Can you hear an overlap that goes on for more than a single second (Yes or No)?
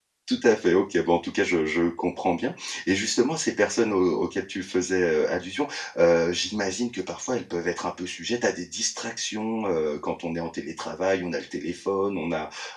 No